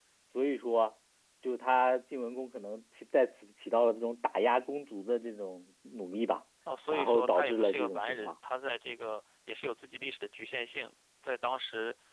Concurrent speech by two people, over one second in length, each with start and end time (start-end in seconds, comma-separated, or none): 6.9-8.3